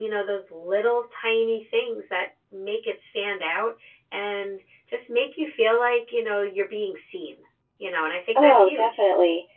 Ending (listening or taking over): taking over